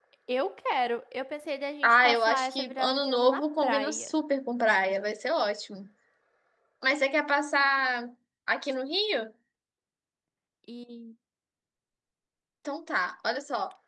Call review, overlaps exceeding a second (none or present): present